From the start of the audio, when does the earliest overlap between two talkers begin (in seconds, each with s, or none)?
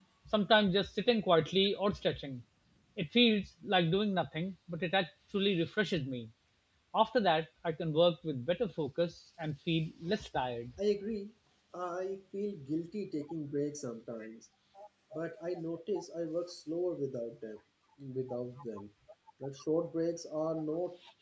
none